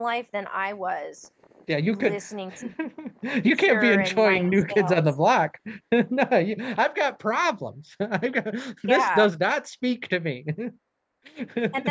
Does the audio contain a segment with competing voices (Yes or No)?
Yes